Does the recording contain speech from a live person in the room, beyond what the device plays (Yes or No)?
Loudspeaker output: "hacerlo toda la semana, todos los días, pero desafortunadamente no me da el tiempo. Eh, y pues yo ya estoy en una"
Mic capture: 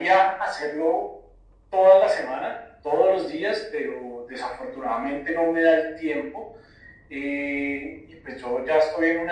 No